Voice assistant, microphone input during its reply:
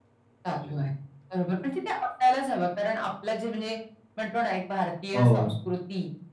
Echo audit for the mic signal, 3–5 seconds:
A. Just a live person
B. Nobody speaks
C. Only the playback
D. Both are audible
C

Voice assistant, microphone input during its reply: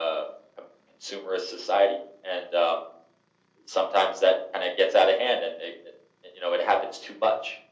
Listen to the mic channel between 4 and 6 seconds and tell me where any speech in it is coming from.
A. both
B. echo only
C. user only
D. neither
B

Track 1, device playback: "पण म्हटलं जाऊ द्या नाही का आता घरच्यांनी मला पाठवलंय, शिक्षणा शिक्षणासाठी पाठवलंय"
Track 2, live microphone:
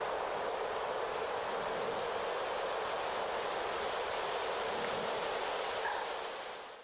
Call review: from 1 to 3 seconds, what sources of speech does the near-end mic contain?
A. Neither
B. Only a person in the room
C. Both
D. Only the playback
A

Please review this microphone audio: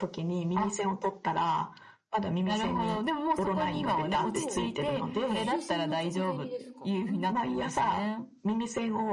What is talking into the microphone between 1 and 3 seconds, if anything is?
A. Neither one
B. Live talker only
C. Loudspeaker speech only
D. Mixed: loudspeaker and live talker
C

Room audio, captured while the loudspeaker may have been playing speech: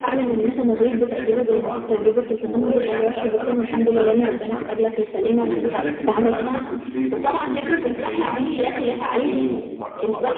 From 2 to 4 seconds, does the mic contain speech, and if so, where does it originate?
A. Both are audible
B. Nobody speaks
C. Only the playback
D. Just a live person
C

